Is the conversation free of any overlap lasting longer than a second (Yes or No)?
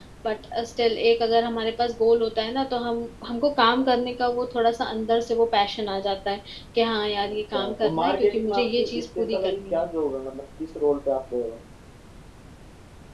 No